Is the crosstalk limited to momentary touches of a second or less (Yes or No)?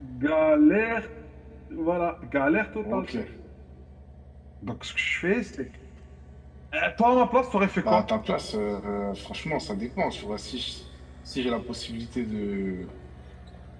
Yes